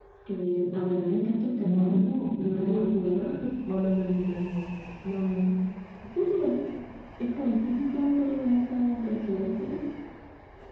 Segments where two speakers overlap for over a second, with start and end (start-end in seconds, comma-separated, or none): 1.6-3.3